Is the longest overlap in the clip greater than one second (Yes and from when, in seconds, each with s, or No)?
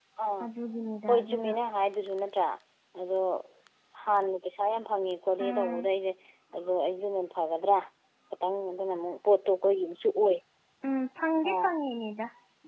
No